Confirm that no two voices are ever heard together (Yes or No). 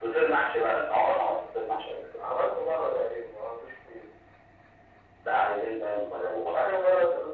Yes